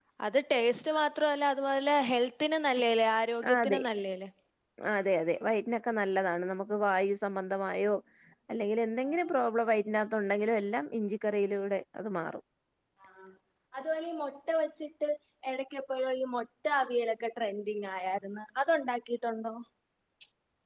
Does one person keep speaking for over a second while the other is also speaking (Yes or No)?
No